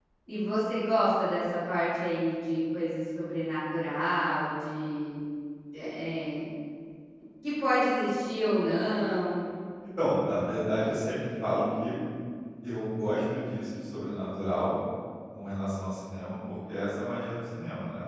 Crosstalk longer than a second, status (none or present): none